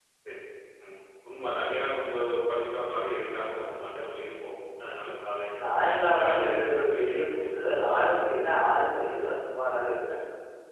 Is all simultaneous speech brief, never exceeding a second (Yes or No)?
No